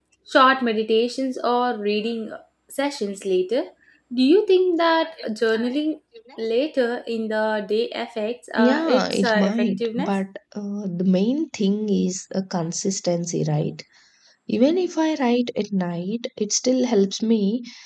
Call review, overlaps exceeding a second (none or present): present